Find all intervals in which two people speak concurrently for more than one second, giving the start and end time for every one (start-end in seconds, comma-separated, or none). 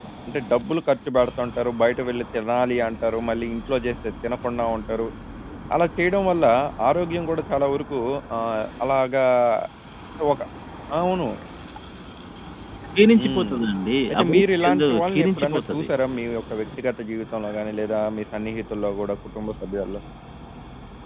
14.1-15.9